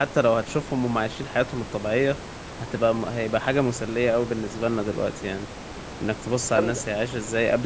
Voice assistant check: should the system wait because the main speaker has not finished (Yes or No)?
Yes